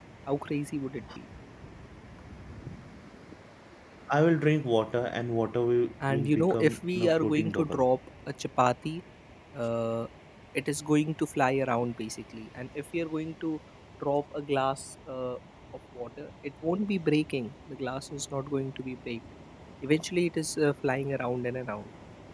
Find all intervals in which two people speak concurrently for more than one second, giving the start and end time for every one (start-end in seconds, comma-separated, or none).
6.1-7.9